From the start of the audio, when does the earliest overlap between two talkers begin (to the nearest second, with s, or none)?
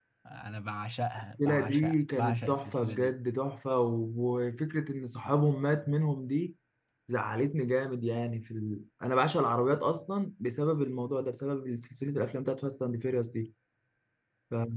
1 s